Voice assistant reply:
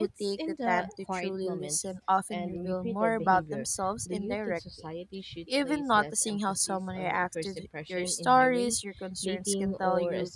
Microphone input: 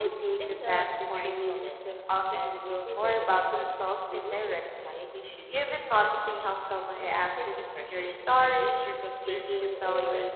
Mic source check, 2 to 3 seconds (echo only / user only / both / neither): echo only